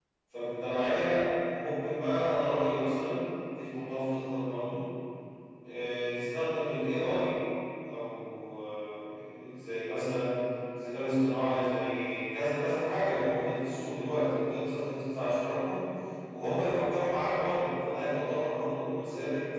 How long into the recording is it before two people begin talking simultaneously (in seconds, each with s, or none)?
none